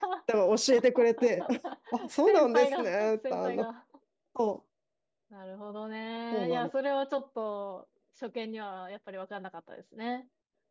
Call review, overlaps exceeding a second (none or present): present